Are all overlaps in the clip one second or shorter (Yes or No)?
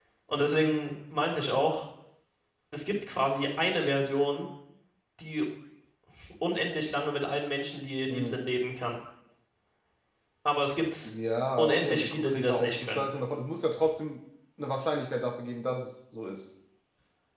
No